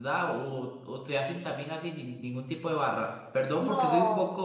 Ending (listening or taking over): listening